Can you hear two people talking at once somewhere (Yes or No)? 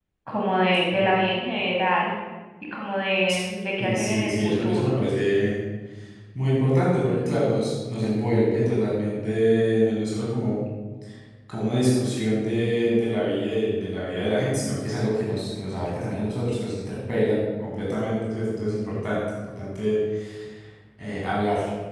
Yes